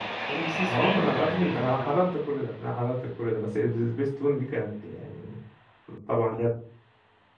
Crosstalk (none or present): present